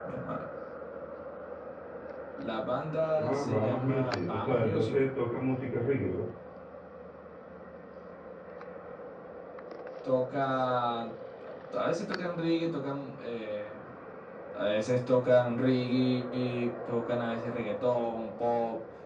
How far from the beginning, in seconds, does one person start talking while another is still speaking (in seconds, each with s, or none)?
3.2 s